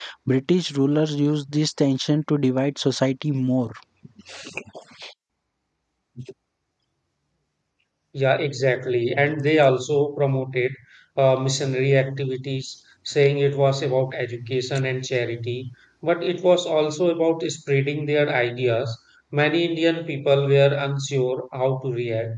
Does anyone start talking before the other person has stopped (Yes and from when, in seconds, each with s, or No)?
No